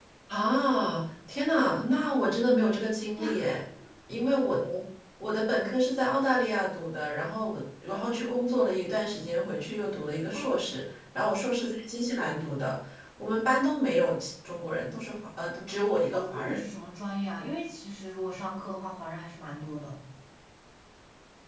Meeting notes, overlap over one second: none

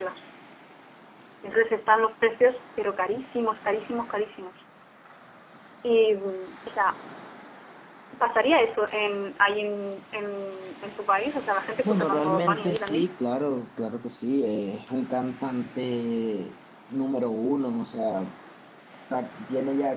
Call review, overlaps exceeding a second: present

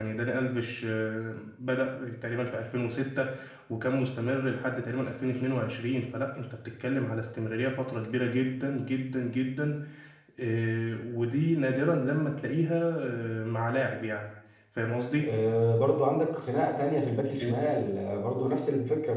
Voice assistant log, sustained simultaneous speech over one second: none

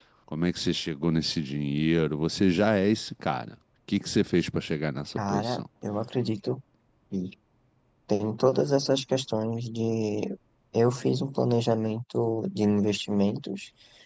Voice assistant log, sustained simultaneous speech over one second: none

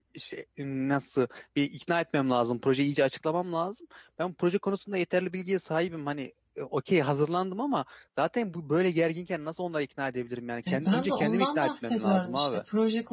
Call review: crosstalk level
present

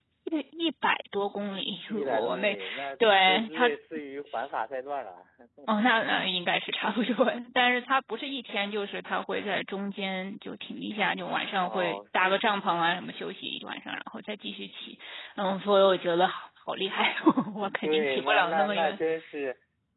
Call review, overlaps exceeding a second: present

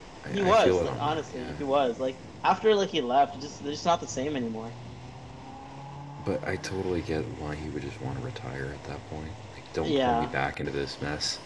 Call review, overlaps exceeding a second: present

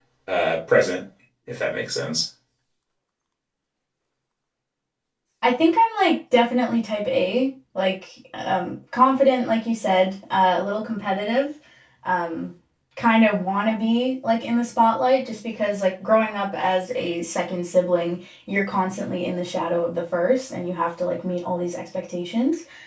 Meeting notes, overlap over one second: none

